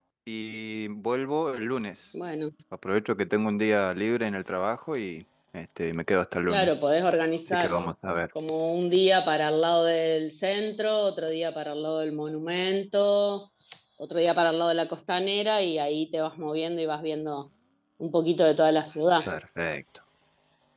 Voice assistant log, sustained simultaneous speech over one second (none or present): none